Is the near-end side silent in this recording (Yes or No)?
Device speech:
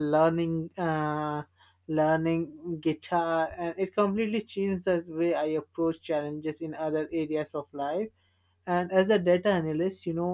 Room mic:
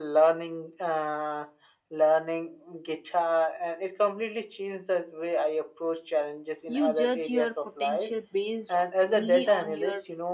No